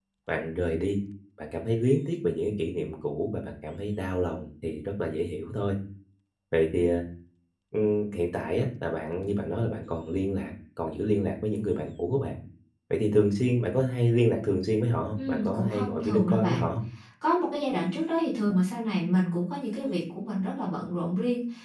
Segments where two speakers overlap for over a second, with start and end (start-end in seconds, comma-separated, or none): 15.2-16.7